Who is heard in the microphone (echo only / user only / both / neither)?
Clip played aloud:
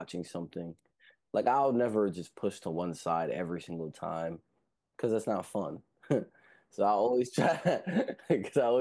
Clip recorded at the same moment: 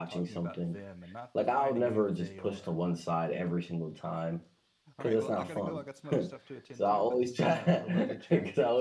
both